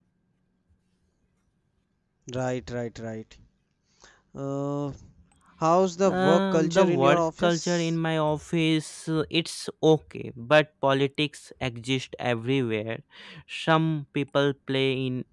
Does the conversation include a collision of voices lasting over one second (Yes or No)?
Yes